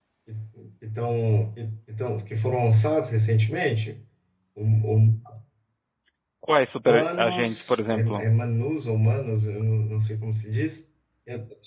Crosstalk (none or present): present